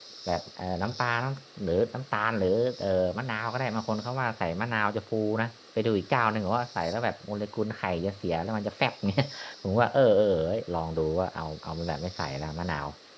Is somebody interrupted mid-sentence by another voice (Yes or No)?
No